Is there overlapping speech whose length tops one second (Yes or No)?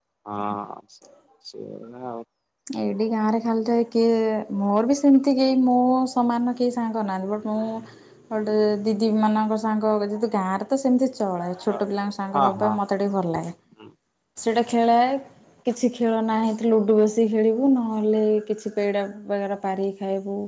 No